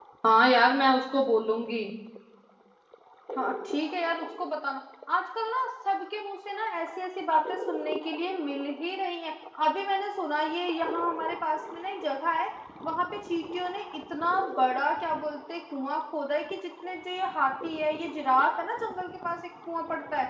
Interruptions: none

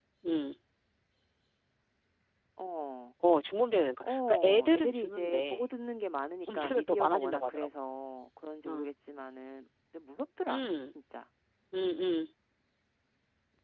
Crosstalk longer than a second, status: present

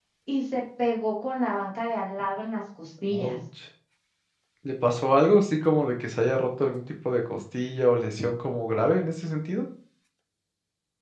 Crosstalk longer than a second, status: none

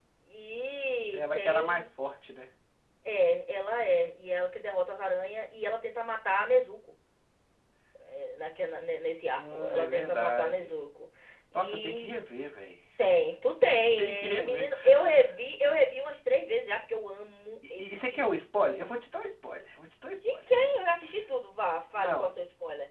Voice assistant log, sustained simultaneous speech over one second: present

